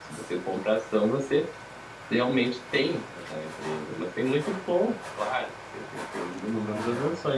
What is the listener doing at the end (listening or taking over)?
listening